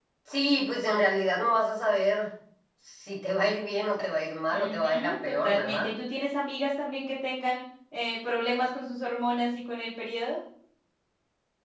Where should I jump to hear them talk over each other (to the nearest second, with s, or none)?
5 s